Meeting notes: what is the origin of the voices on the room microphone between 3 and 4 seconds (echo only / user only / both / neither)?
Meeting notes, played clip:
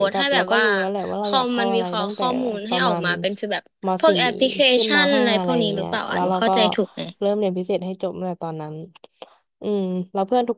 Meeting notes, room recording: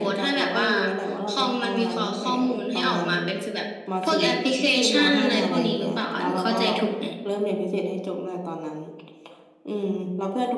echo only